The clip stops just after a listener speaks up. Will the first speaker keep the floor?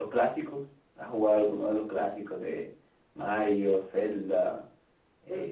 No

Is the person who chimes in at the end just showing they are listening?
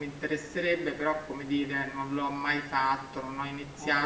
Yes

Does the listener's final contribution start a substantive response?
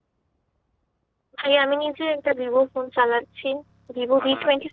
No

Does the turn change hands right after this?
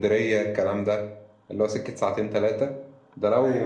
No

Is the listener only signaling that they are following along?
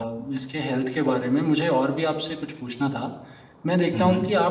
Yes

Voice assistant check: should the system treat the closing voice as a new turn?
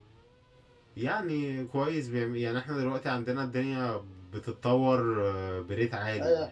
Yes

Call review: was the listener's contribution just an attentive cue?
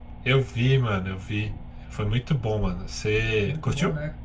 No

